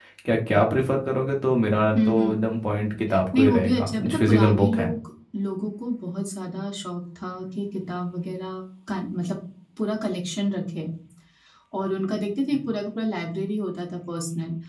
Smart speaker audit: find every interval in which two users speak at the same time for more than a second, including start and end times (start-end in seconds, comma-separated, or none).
3.3-4.9